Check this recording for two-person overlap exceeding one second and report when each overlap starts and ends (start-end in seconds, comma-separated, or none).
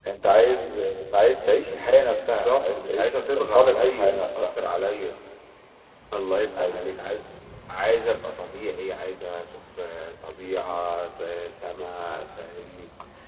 2.3-4.5